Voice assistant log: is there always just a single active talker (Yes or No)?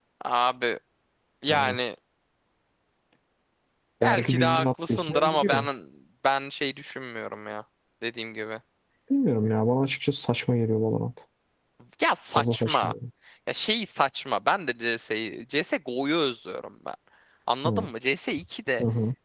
No